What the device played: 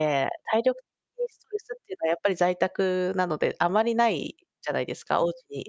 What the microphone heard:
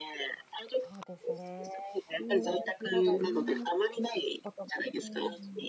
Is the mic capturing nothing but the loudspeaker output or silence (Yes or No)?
No